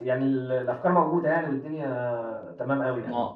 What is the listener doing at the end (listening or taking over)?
taking over